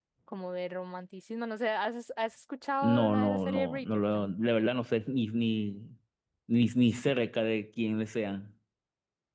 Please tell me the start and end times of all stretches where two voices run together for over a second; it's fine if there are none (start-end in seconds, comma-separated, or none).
2.8-4.3